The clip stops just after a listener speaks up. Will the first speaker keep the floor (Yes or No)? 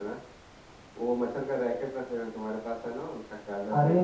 No